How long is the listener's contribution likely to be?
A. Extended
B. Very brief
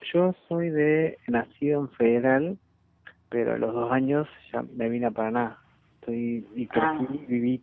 B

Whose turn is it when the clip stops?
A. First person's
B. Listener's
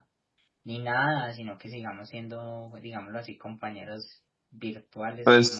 B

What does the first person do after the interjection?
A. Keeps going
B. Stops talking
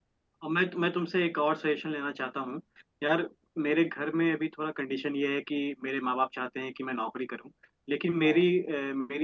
A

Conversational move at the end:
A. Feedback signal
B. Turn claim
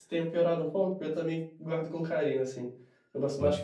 B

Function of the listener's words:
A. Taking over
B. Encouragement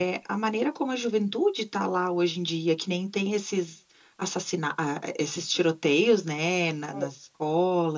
B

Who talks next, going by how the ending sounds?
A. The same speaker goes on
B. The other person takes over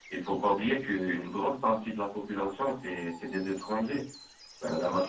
A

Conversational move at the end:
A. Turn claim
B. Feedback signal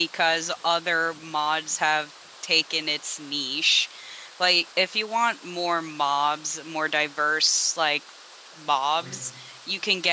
B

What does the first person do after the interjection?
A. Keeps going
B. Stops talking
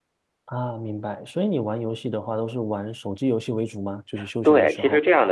B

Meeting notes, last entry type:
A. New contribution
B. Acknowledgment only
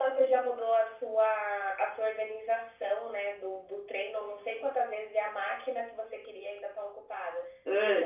B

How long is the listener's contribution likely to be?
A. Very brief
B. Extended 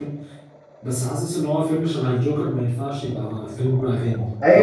B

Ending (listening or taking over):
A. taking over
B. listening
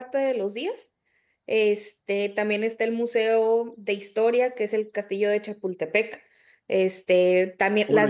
A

